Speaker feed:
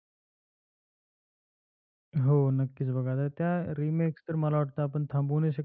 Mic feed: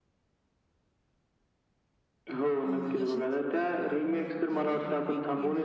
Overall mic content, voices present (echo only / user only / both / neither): both